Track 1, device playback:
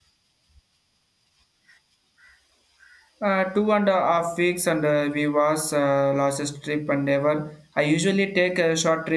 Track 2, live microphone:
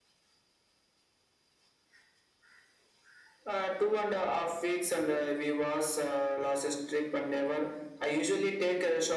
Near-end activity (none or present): none